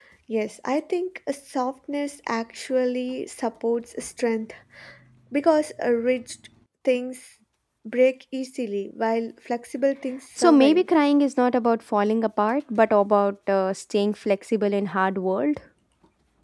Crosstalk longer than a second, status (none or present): none